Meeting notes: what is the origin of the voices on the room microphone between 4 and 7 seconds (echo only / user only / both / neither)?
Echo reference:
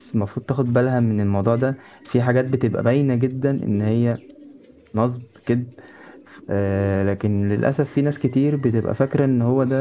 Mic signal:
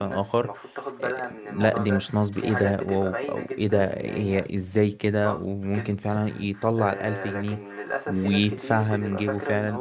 both